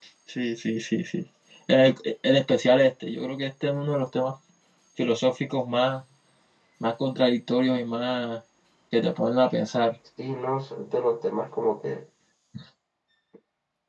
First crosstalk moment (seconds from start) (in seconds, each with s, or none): none